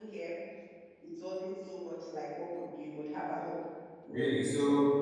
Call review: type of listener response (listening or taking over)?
taking over